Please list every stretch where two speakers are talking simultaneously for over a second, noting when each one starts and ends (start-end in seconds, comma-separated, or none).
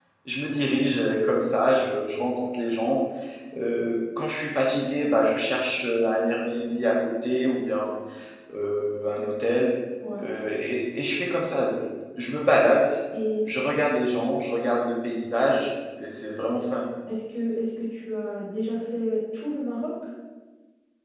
none